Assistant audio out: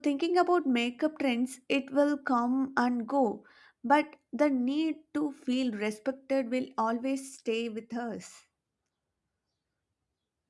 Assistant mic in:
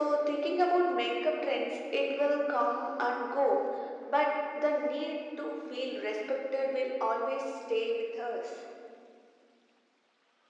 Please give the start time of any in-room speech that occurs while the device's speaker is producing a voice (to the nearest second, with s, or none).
none